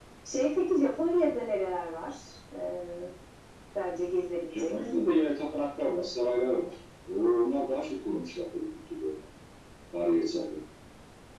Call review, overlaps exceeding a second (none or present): none